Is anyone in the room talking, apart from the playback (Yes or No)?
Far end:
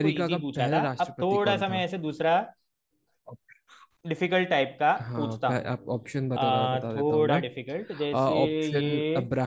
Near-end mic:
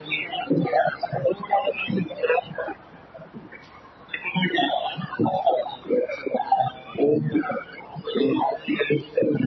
No